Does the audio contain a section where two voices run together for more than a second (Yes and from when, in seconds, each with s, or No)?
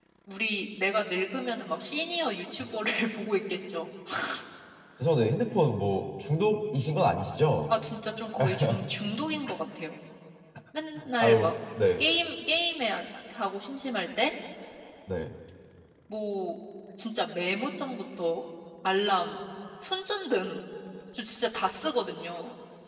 No